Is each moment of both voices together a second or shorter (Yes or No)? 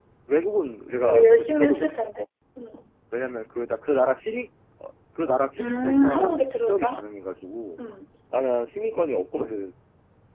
No